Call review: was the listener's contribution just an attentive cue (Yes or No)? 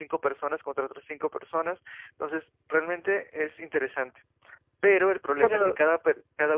Yes